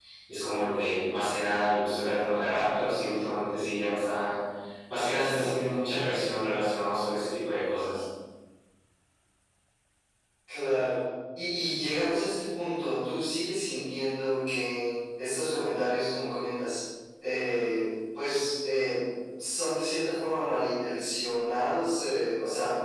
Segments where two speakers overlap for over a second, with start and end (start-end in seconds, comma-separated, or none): none